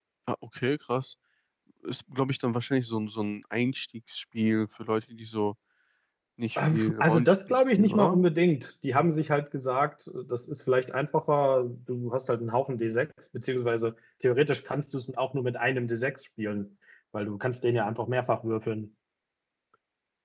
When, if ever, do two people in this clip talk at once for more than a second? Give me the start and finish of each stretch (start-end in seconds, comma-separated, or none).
6.6-8.2